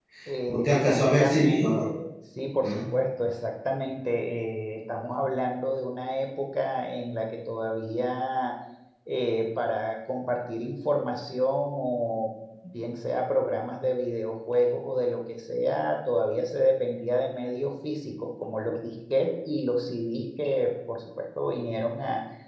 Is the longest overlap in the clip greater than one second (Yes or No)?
Yes